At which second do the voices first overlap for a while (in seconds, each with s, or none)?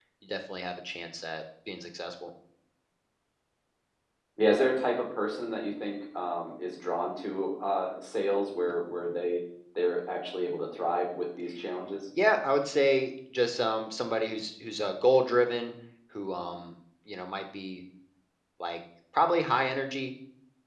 none